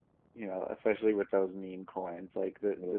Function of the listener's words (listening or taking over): listening